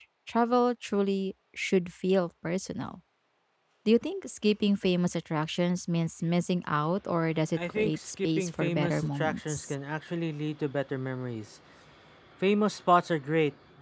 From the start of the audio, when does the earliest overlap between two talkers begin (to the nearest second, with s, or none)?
8 s